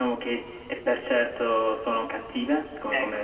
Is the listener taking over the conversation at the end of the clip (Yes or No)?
Yes